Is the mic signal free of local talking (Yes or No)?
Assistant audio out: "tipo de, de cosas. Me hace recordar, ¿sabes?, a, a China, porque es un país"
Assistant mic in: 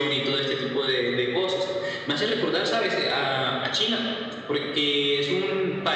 Yes